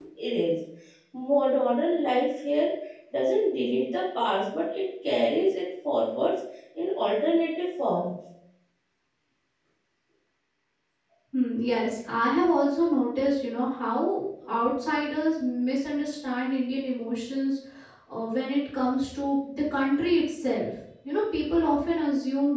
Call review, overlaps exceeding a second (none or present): none